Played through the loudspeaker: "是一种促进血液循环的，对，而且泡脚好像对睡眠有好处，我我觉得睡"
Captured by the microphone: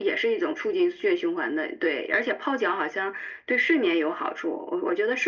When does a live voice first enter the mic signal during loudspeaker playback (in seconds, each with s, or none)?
none